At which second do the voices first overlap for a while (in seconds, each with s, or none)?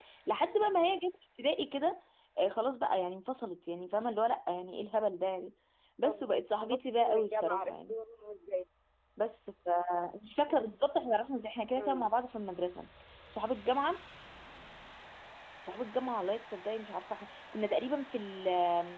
6.0 s